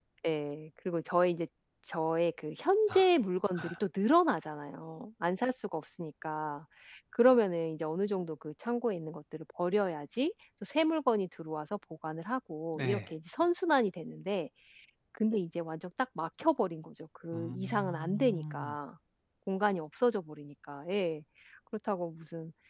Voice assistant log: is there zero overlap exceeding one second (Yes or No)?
No